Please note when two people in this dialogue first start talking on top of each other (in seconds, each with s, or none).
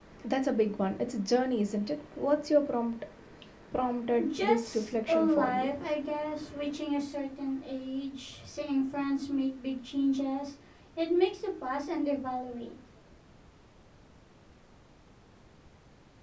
4.3 s